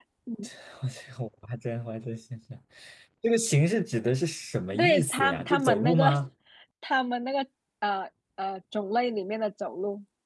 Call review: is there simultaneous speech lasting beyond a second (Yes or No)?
Yes